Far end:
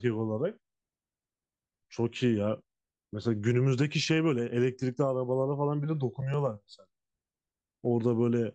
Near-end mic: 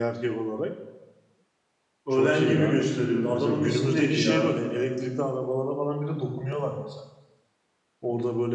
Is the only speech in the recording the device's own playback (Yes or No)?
No